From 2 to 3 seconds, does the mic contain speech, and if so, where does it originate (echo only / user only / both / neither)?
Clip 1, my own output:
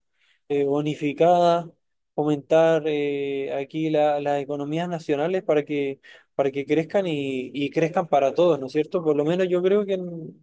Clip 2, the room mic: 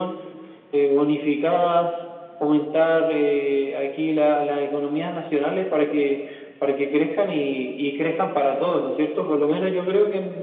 echo only